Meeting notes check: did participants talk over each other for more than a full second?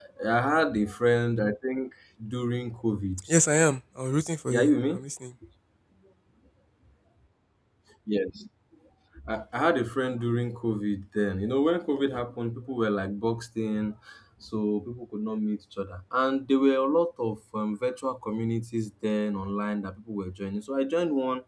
No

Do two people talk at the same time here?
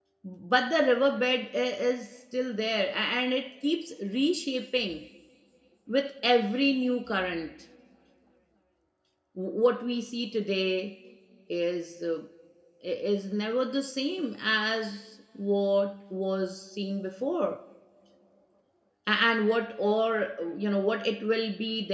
No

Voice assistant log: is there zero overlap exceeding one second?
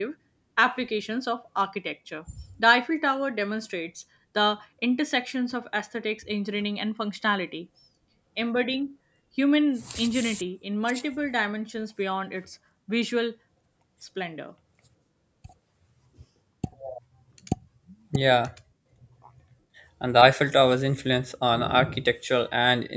Yes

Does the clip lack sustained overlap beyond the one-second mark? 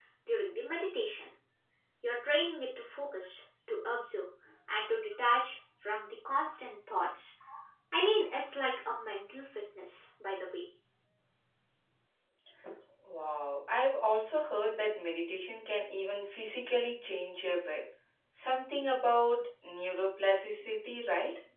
Yes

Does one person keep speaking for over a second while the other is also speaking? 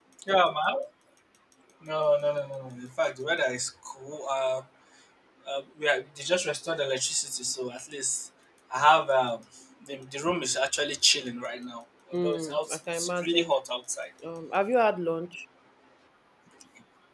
Yes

